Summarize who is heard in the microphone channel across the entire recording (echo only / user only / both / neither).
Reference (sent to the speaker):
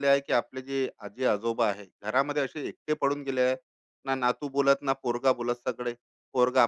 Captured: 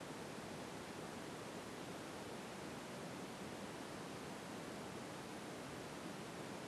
neither